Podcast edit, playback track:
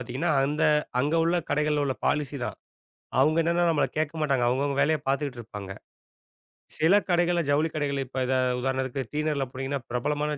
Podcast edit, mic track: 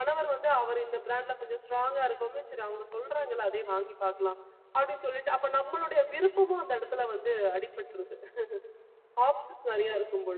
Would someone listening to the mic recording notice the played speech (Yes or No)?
No